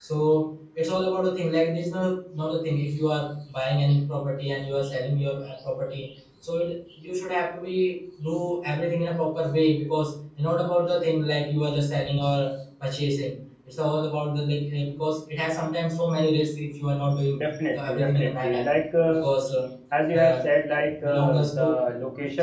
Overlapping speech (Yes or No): Yes